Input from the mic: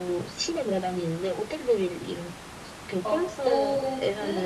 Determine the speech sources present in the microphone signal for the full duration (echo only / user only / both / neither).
both